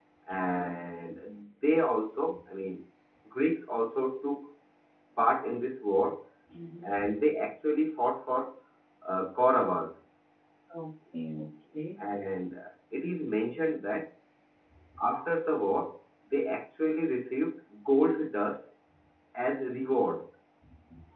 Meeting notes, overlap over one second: none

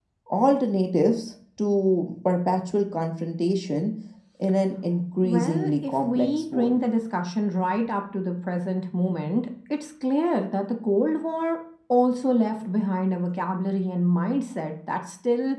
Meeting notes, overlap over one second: present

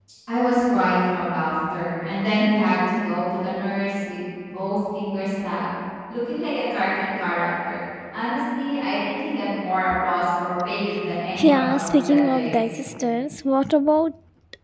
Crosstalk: present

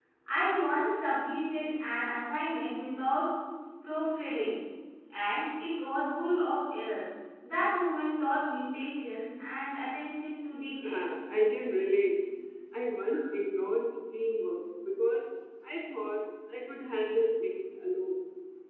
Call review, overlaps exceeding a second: none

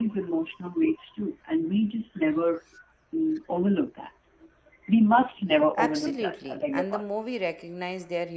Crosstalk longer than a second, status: present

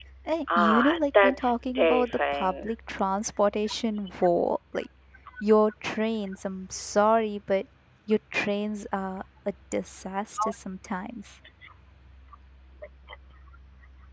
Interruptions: present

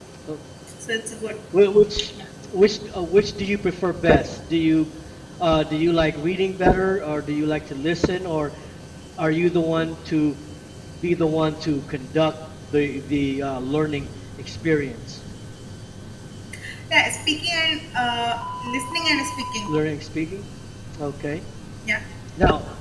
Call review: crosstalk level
none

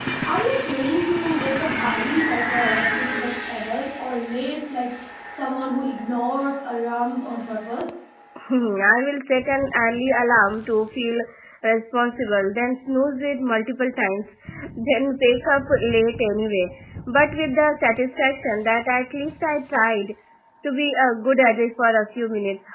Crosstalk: none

